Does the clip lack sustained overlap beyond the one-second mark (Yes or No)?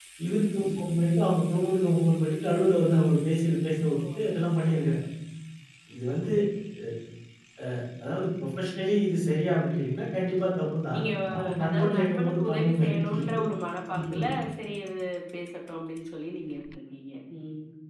No